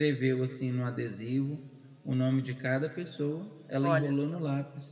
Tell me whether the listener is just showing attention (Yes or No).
Yes